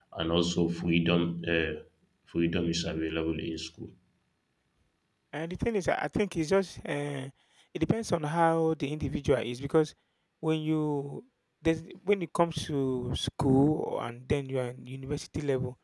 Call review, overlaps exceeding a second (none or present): none